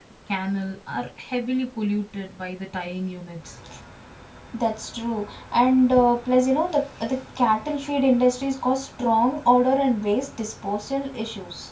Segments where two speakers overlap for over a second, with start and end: none

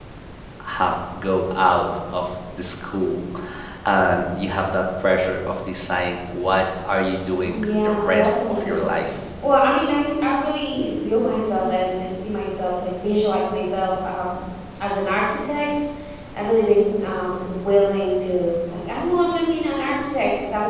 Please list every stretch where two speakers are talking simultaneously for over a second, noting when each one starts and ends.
7.4-8.9

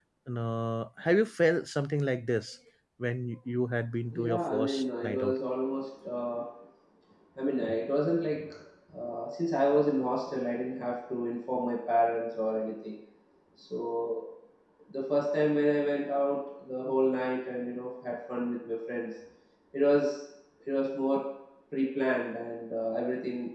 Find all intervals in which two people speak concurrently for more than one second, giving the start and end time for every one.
4.1-5.3

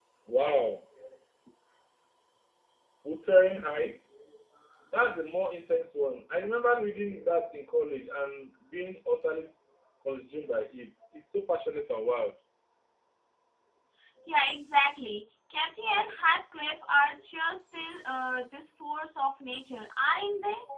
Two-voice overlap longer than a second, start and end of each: none

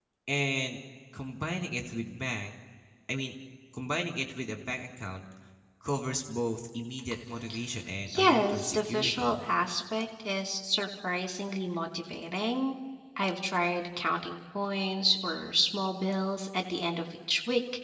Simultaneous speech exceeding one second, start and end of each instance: 8.1-9.4

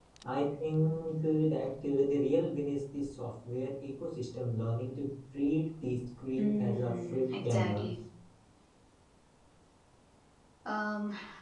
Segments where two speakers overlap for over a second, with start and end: 6.4-7.9

